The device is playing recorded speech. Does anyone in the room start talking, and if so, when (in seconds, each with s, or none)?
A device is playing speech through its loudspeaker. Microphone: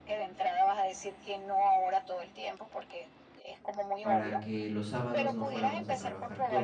4.0 s